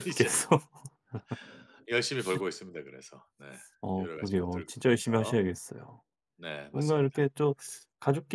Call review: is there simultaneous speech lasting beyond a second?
Yes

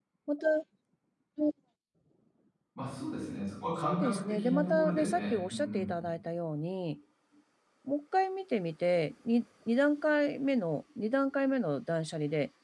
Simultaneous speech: Yes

